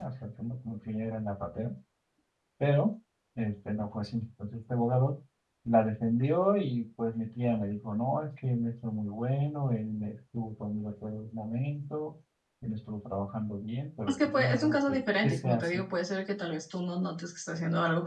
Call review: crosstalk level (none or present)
present